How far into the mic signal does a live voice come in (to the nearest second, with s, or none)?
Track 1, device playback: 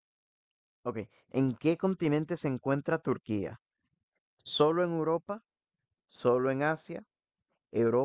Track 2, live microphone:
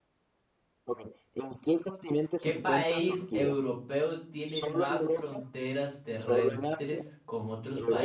2 s